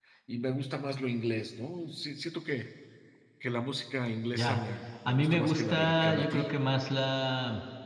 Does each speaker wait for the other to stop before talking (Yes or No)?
No